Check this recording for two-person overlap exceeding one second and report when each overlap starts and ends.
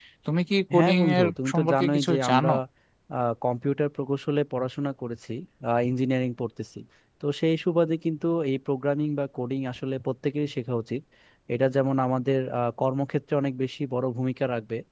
0.8-2.5

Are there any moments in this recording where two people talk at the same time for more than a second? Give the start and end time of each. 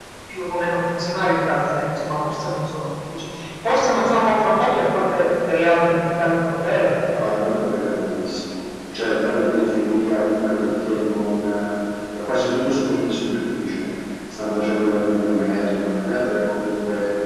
none

